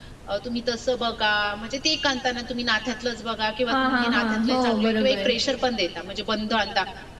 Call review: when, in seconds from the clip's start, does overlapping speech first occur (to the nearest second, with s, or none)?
4 s